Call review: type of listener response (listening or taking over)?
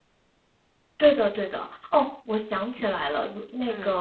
listening